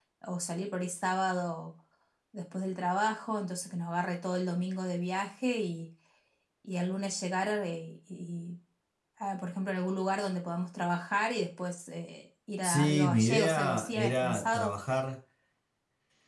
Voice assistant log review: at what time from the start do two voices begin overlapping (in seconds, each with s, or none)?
12.6 s